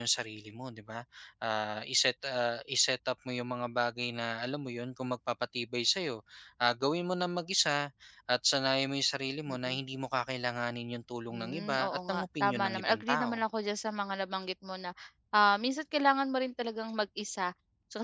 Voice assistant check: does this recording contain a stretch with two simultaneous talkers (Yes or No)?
Yes